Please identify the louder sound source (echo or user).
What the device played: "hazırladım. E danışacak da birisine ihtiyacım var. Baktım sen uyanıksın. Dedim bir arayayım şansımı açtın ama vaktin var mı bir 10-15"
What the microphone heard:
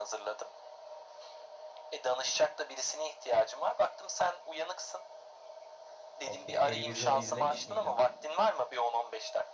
echo